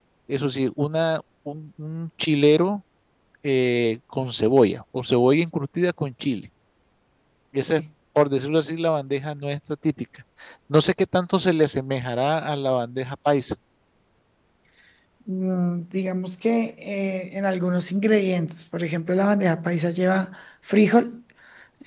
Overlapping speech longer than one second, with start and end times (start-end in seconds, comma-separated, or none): none